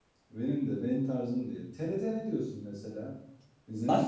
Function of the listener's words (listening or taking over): taking over